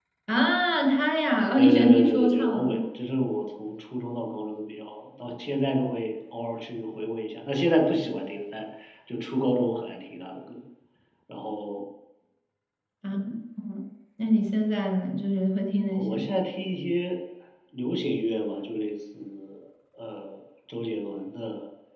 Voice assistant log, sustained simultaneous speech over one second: present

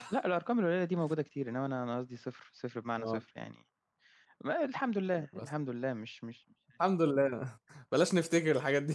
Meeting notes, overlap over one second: none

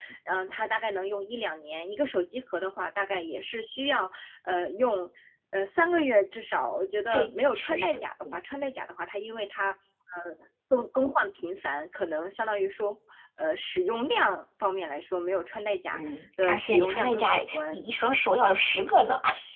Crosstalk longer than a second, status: present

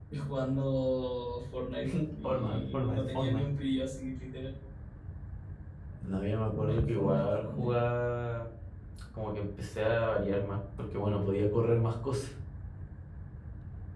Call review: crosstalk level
present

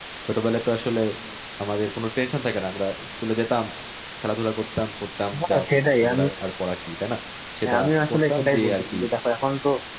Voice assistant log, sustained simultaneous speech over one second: present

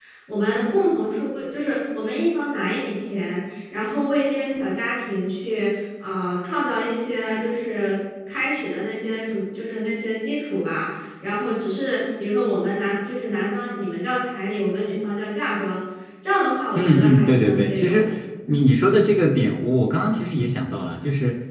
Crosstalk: present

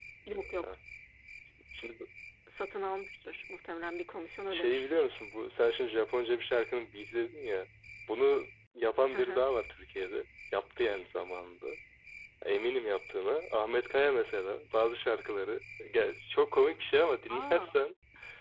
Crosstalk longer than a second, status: none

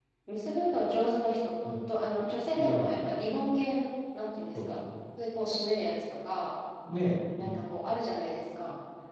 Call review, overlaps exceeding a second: none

